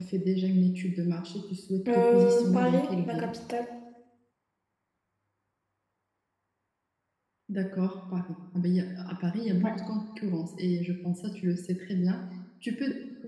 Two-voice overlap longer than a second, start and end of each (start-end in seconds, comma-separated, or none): 1.9-3.3